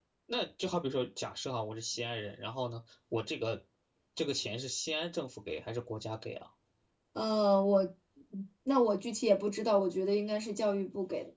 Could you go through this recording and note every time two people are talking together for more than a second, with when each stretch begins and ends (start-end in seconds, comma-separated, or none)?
none